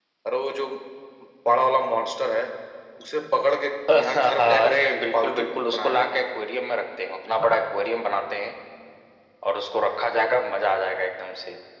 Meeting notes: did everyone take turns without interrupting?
No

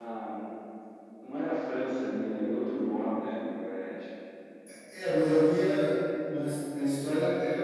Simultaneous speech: No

